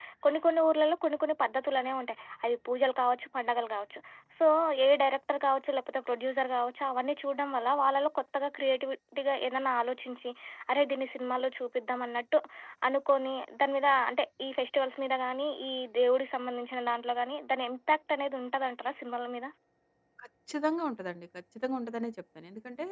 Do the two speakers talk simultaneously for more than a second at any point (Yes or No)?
No